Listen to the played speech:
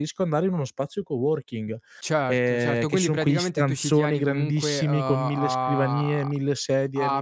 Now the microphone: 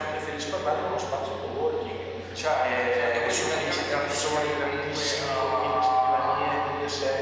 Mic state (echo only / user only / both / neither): echo only